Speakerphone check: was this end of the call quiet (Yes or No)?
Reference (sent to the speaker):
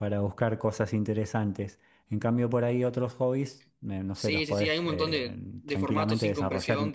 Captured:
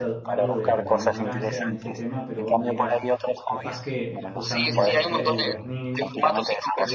No